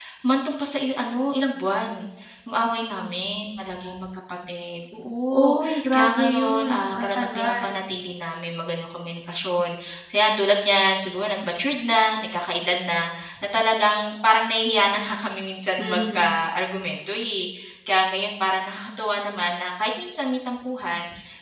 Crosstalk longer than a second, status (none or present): present